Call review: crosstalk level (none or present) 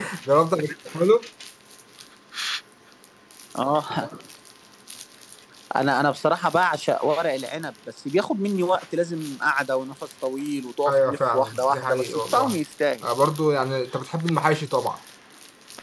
present